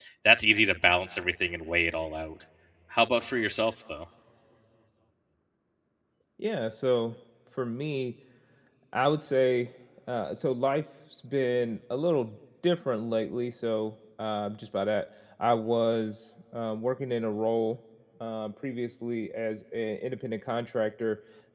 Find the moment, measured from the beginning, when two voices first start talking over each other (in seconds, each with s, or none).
none